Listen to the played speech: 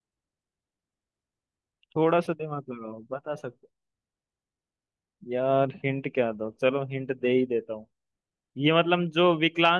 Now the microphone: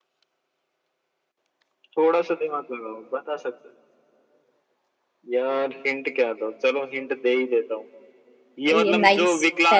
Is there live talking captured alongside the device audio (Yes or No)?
Yes